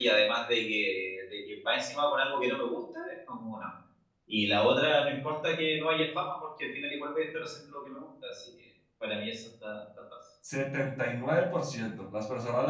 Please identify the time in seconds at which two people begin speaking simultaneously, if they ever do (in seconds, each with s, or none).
none